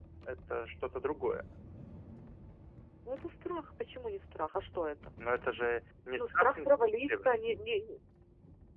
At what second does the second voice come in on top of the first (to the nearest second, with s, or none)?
6 s